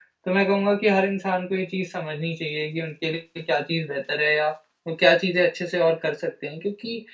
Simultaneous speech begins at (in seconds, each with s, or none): none